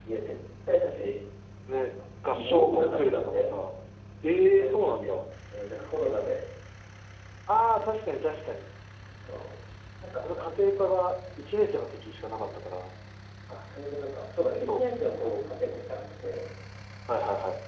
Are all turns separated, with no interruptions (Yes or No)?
No